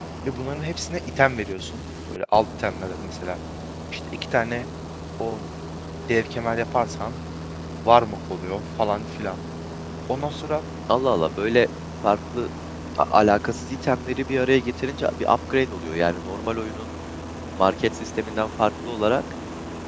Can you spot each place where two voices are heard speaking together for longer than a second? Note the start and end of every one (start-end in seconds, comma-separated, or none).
none